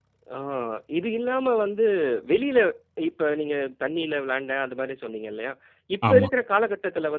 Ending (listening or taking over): listening